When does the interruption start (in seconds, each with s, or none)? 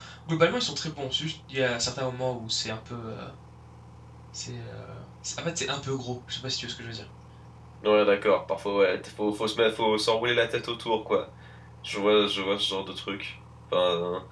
none